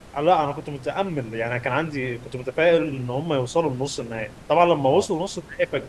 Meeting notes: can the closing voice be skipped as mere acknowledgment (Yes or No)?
Yes